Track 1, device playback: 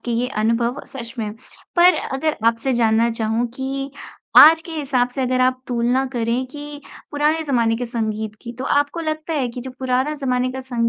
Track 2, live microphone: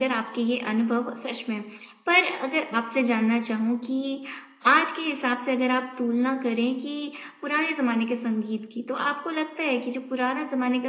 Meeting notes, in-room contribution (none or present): none